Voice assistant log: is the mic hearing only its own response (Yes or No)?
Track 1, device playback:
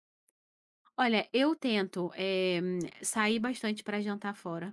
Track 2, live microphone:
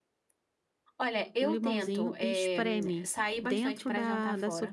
No